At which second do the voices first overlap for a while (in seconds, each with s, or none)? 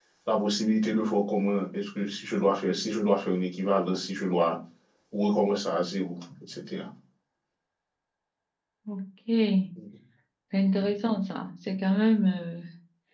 none